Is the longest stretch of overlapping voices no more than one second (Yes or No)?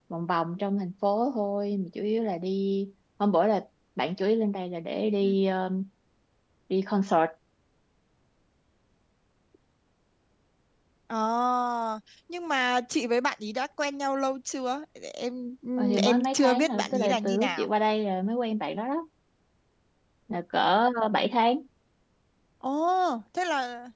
No